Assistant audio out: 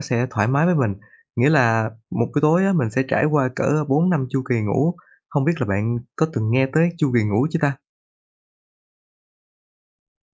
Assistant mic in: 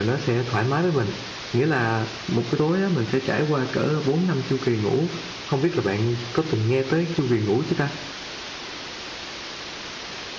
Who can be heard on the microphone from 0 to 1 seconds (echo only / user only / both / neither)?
echo only